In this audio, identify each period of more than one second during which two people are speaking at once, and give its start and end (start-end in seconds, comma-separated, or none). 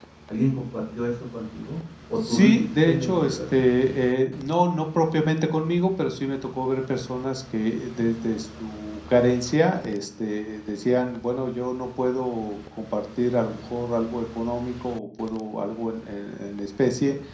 2.2-3.4